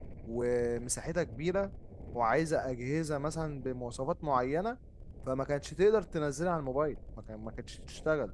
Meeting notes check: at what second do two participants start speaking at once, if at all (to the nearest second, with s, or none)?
none